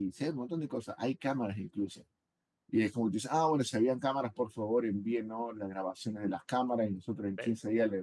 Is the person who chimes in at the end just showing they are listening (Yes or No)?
Yes